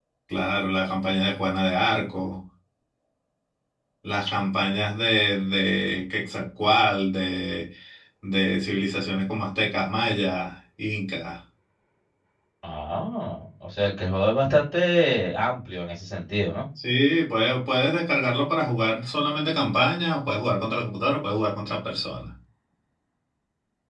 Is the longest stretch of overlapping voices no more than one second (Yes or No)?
Yes